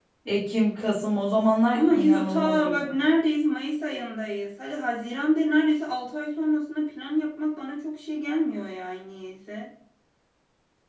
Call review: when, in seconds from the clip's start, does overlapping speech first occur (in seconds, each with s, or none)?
1.7 s